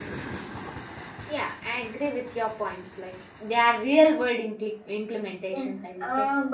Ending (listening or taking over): taking over